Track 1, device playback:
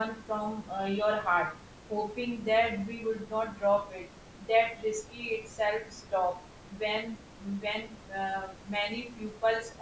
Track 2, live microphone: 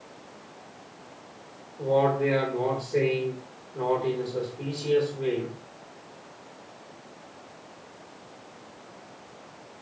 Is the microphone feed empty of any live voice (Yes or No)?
No